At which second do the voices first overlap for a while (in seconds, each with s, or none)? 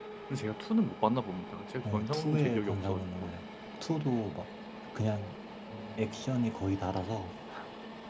1.8 s